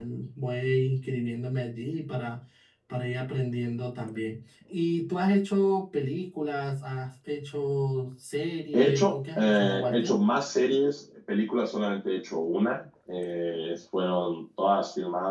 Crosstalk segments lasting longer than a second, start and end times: 8.7-10.1

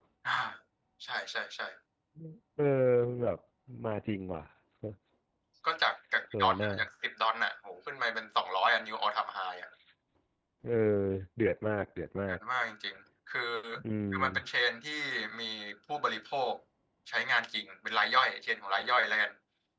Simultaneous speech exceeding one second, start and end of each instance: none

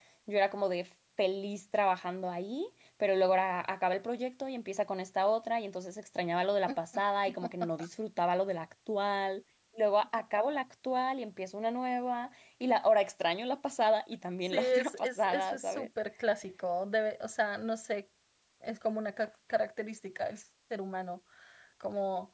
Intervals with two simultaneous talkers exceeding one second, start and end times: 14.5-15.9

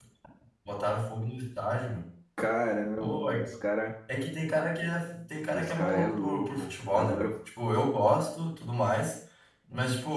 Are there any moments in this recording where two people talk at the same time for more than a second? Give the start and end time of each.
5.5-7.3

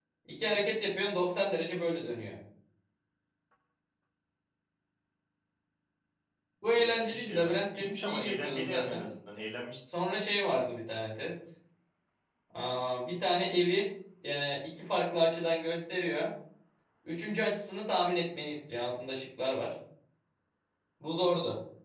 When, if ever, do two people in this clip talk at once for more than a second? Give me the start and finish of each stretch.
6.7-9.1

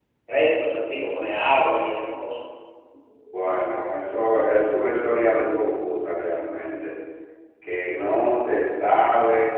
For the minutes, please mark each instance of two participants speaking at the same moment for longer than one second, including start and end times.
none

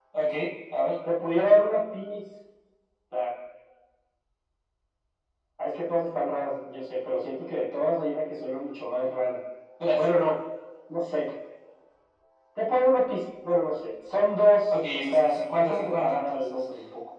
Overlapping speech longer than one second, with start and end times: 14.9-16.6

